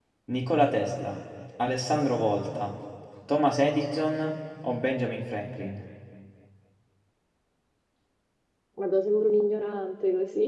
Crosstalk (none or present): none